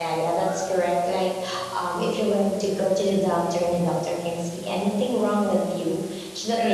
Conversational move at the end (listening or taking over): listening